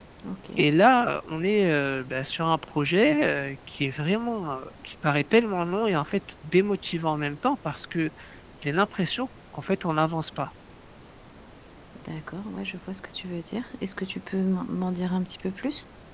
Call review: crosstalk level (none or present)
none